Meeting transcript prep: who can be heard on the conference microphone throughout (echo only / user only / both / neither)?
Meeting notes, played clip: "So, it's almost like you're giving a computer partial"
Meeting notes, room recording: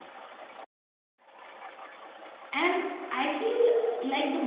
user only